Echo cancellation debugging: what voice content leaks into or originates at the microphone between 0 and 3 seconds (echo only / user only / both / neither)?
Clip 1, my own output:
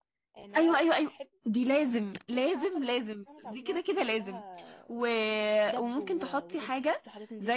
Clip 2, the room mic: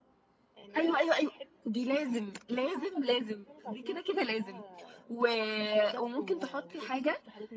echo only